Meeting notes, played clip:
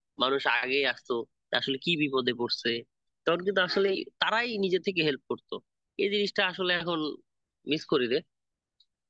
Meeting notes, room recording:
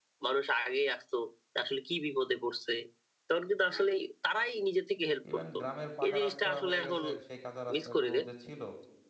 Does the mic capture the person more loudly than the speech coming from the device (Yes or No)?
No